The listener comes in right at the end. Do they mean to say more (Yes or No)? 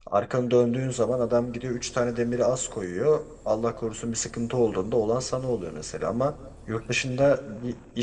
No